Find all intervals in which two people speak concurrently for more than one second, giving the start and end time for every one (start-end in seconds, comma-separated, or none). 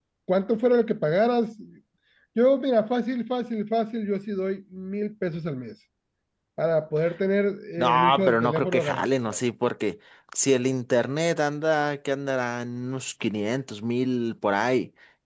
7.8-9.4